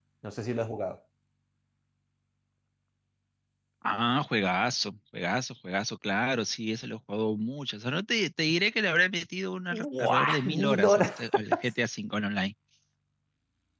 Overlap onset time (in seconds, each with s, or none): 9.7 s